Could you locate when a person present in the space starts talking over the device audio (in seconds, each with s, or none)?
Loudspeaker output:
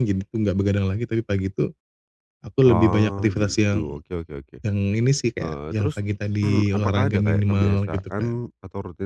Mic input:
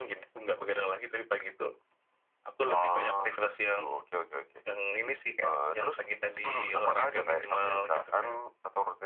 none